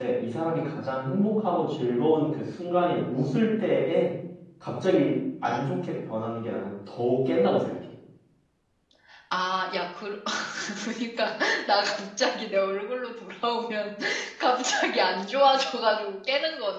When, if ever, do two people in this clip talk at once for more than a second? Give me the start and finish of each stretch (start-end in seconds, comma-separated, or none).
none